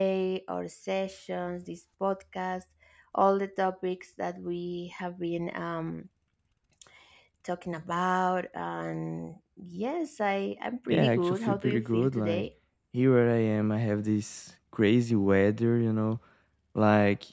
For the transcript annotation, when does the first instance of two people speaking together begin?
10.9 s

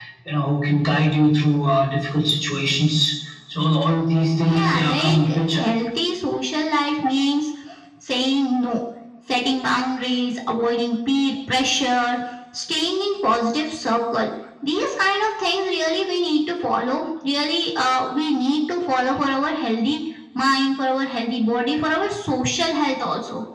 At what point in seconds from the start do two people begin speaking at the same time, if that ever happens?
4.4 s

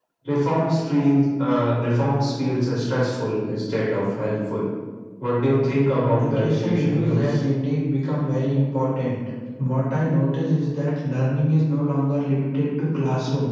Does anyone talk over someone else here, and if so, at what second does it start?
6.0 s

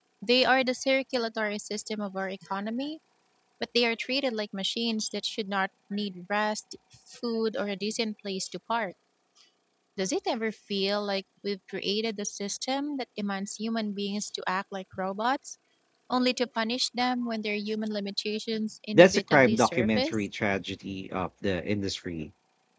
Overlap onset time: 18.9 s

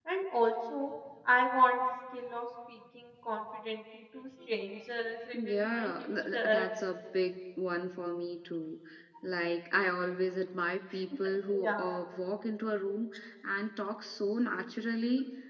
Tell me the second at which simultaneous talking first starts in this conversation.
5.3 s

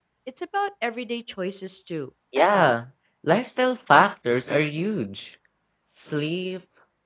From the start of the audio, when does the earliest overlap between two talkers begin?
none

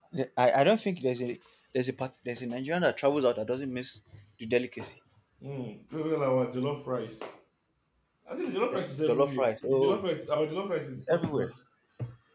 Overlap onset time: 8.7 s

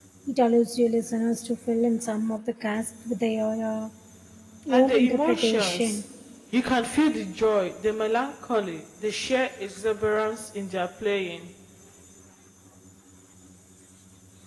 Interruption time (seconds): 4.7 s

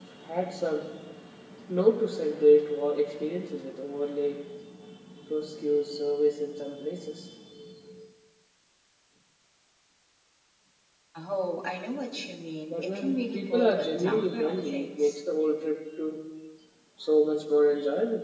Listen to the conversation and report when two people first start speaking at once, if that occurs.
12.7 s

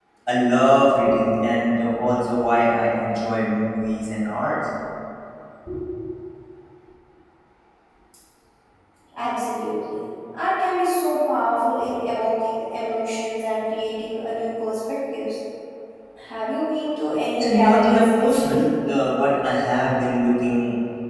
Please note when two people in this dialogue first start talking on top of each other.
17.4 s

